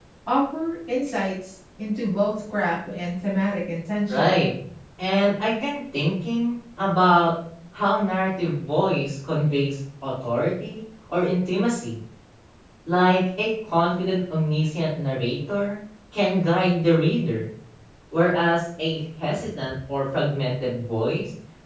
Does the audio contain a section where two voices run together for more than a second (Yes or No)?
No